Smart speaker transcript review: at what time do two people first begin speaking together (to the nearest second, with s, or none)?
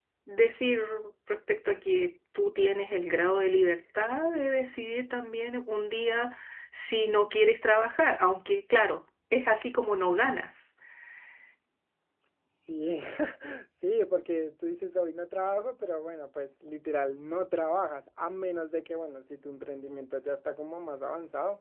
none